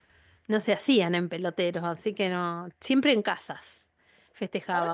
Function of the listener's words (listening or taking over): taking over